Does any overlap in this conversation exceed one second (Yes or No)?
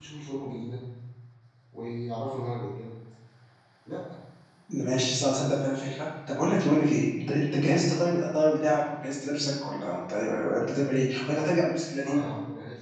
No